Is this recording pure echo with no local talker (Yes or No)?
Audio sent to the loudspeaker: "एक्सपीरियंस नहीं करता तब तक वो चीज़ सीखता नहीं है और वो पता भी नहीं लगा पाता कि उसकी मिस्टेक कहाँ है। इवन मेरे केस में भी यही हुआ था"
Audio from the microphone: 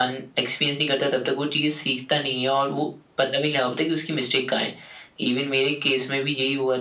Yes